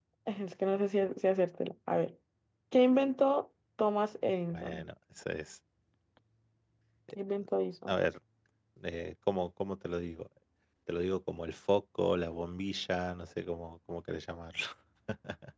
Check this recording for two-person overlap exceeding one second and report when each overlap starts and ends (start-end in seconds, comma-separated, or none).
none